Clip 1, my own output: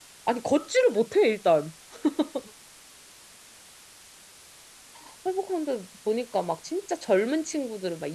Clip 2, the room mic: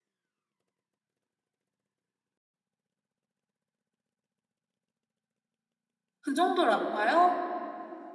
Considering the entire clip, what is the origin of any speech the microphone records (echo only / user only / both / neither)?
user only